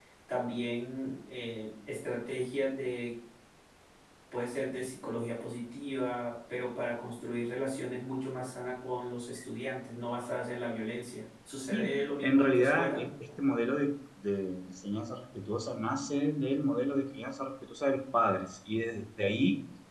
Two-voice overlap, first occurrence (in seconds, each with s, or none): 11.7 s